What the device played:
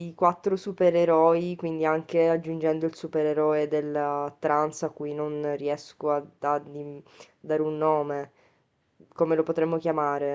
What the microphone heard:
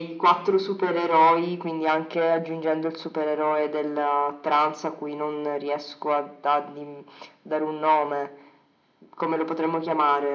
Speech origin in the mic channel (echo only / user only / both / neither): echo only